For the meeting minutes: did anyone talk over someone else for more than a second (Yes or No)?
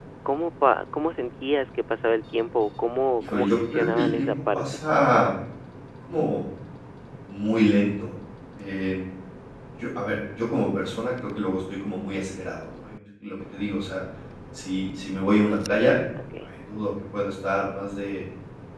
Yes